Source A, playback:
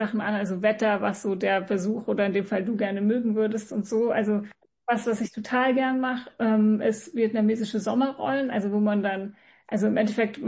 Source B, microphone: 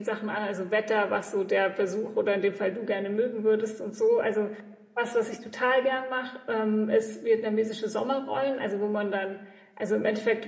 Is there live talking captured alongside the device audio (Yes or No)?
No